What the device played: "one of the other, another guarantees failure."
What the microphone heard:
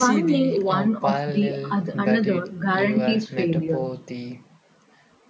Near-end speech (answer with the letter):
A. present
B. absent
A